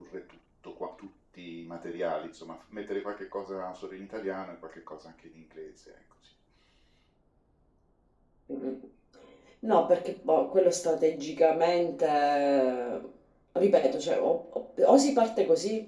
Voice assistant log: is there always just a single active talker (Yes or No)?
Yes